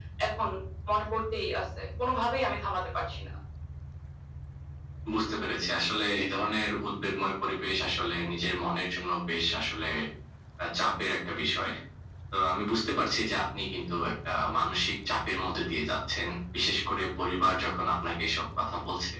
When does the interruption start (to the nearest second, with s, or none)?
none